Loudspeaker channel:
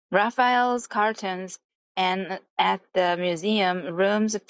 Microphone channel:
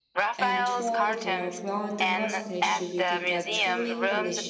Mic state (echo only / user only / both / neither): both